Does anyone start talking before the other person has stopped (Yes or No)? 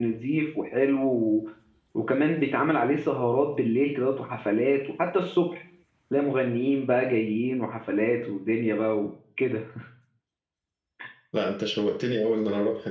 No